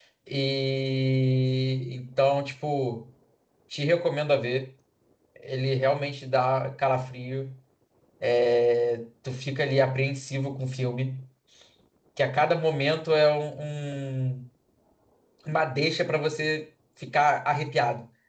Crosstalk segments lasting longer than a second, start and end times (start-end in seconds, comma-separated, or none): none